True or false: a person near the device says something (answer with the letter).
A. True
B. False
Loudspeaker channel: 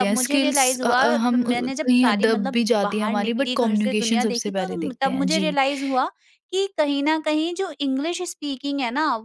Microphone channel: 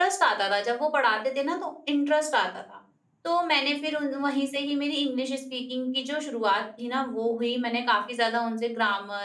A